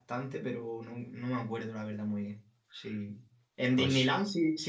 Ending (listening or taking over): listening